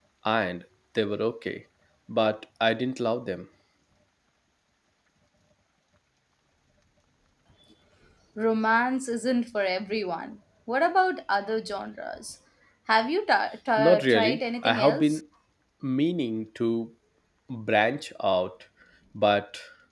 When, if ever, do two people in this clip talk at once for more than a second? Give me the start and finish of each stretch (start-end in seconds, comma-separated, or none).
13.8-15.2